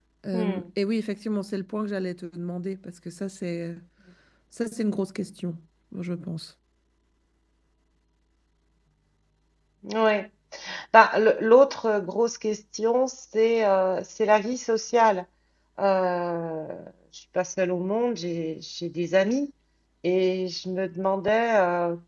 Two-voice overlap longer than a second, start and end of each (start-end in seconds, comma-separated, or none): none